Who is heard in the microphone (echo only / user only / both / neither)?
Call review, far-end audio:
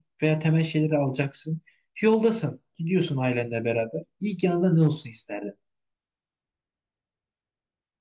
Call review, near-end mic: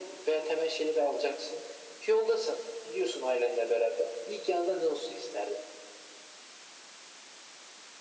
echo only